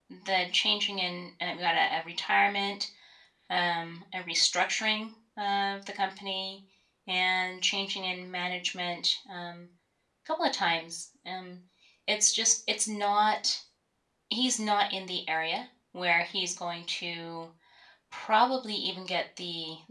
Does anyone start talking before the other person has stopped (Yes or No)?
No